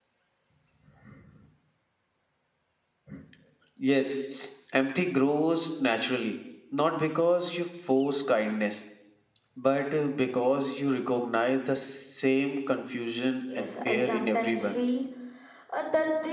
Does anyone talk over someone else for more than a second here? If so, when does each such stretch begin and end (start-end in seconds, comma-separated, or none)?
13.6-14.8